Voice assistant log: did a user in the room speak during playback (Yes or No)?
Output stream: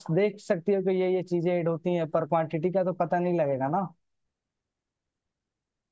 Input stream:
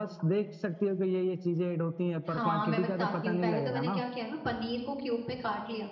Yes